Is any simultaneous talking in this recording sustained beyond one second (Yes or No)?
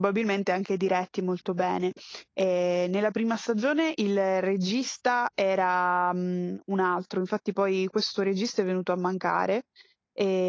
No